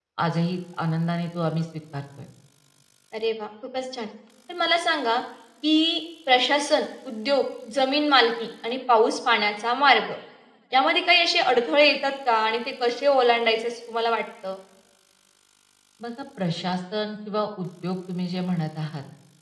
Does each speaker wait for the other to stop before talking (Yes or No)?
Yes